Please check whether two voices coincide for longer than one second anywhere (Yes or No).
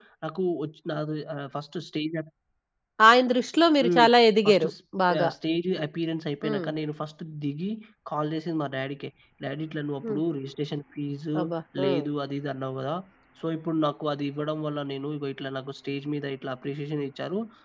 No